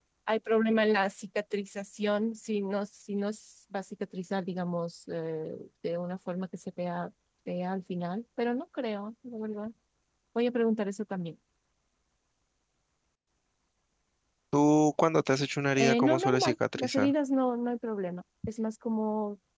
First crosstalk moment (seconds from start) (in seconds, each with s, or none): 15.8 s